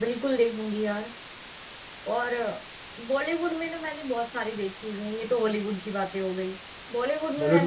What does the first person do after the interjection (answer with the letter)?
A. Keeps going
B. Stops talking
A